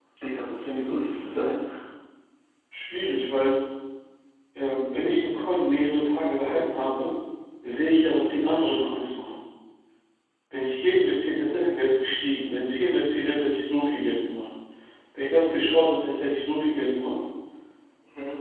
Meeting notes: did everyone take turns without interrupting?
Yes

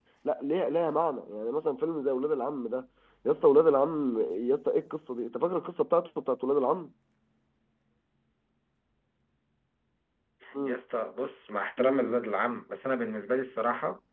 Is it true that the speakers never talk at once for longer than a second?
Yes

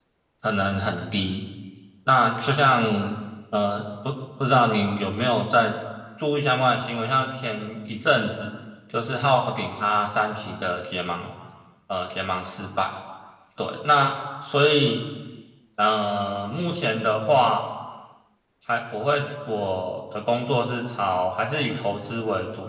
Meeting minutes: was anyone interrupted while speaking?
No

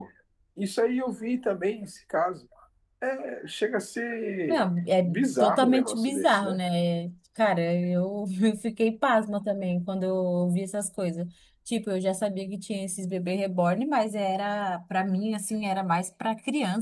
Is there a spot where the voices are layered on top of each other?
Yes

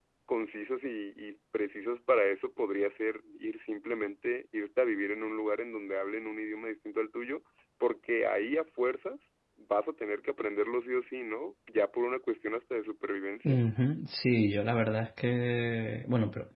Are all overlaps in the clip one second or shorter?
Yes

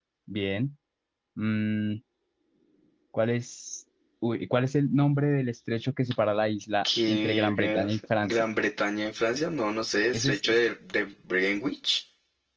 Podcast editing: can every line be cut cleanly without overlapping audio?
No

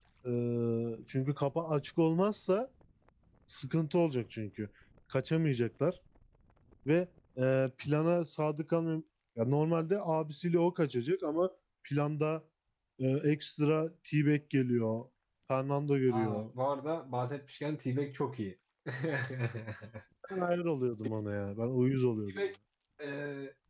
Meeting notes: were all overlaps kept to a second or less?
Yes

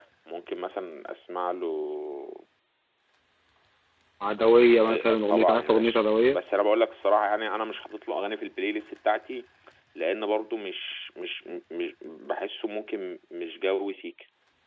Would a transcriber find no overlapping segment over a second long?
No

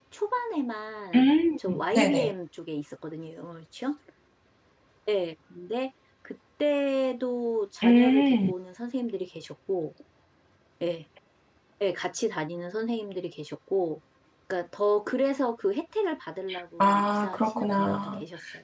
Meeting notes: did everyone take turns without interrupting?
No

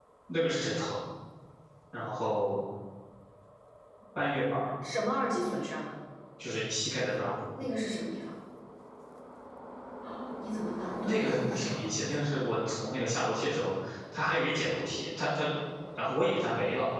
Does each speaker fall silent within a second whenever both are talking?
No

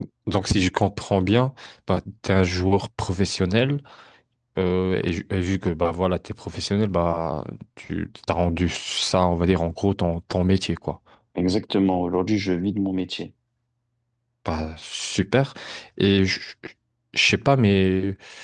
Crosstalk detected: No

